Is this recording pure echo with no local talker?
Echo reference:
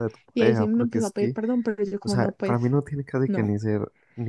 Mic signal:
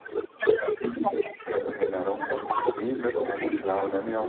No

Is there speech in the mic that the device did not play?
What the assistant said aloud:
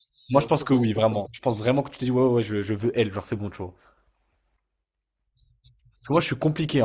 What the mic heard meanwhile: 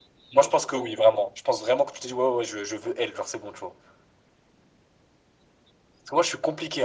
No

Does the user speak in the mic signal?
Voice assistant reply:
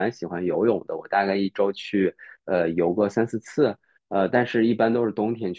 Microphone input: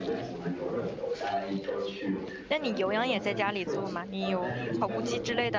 Yes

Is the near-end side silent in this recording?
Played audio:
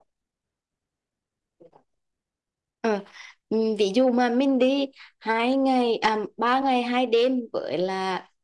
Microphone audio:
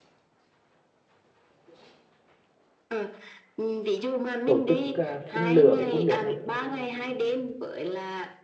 No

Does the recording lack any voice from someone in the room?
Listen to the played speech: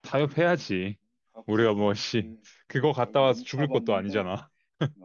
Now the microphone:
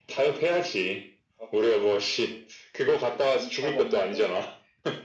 Yes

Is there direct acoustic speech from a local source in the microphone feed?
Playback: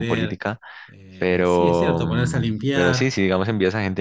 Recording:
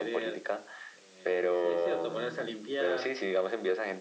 No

